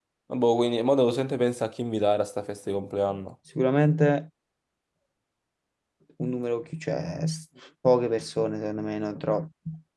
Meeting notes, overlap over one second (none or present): none